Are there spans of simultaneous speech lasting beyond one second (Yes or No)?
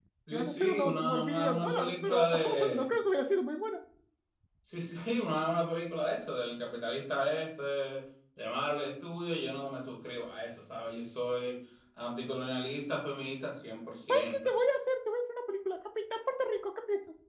Yes